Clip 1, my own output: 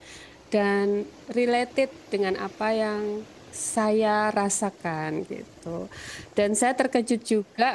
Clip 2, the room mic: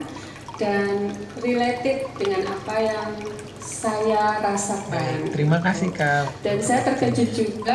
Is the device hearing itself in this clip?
Yes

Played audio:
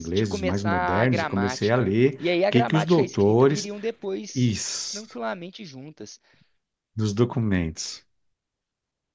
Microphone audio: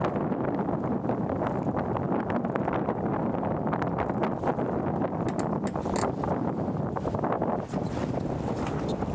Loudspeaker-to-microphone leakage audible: No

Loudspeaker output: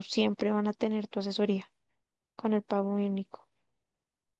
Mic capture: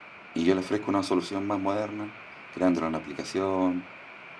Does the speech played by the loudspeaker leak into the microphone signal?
No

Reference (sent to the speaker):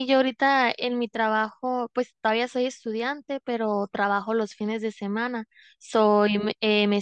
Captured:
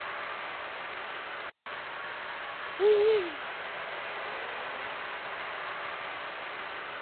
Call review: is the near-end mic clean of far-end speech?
Yes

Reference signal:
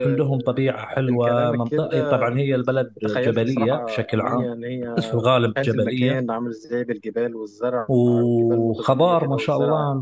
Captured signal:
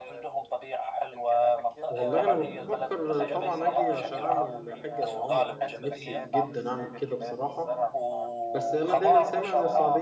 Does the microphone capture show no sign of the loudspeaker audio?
No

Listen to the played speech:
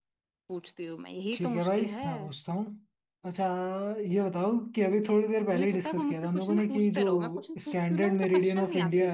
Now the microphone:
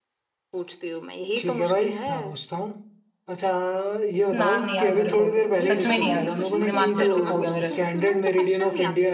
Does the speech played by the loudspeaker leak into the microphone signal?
Yes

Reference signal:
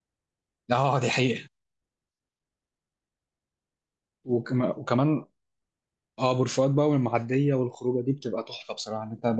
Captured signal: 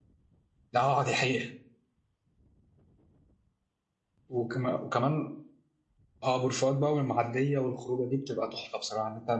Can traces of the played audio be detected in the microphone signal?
Yes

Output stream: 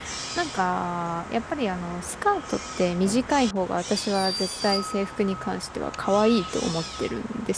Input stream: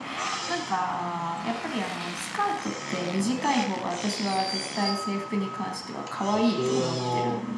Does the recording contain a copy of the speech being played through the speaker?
Yes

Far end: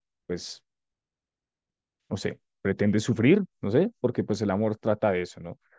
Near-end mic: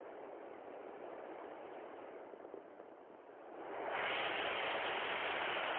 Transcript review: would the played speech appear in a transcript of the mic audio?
No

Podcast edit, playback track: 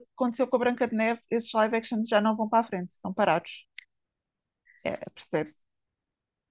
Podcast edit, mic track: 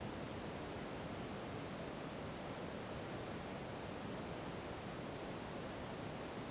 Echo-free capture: Yes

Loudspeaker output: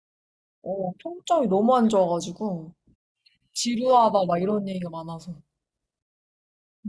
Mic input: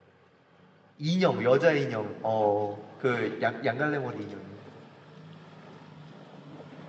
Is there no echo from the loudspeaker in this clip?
Yes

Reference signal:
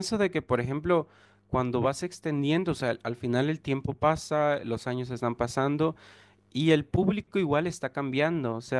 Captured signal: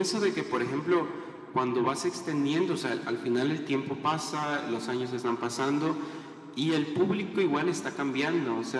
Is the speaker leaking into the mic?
Yes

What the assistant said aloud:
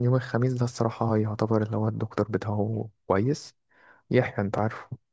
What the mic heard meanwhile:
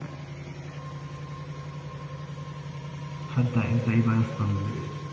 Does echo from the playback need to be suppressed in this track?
No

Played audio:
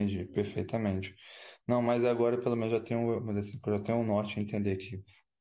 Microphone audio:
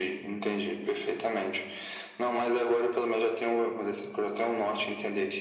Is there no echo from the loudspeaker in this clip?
No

